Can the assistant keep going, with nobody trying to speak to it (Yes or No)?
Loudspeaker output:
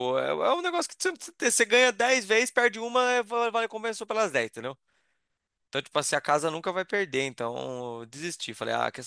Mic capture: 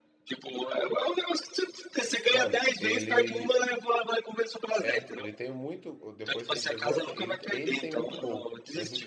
No